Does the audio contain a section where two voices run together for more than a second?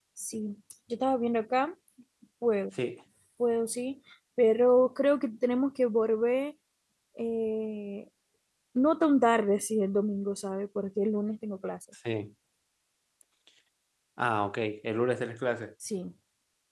No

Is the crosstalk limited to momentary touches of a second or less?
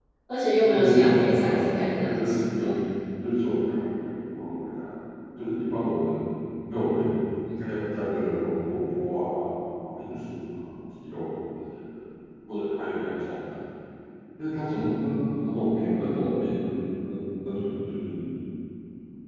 No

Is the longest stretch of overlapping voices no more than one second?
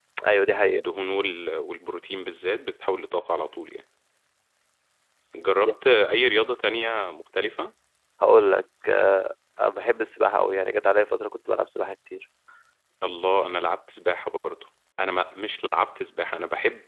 Yes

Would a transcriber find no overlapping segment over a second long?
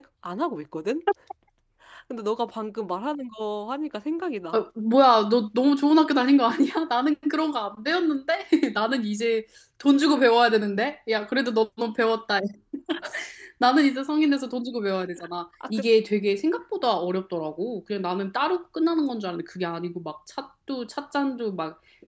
Yes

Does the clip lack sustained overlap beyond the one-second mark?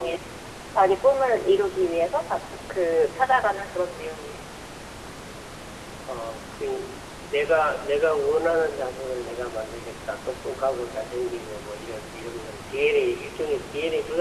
Yes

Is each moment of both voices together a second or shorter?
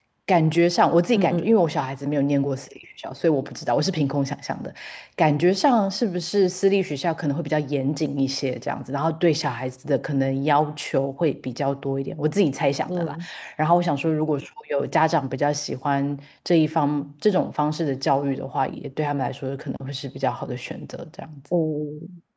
Yes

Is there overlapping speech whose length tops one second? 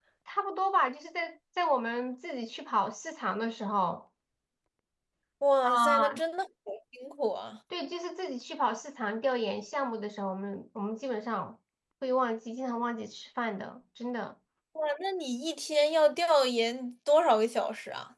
No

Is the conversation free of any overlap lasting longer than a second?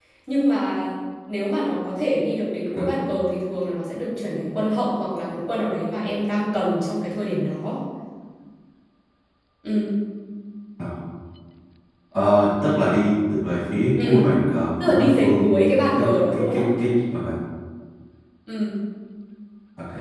No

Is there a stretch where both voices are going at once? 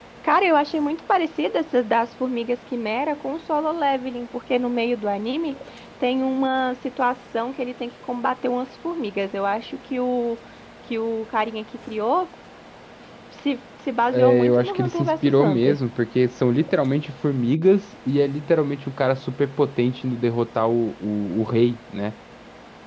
Yes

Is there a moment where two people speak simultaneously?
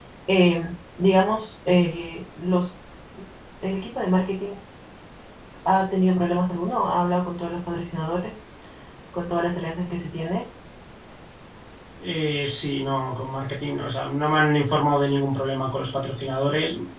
No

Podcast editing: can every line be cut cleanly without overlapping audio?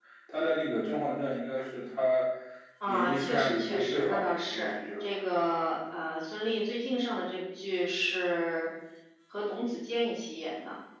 No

